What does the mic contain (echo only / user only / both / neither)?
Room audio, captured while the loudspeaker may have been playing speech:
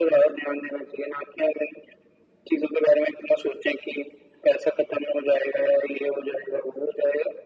echo only